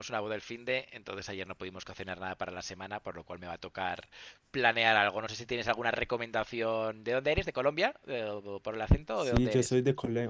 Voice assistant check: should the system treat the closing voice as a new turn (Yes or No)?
Yes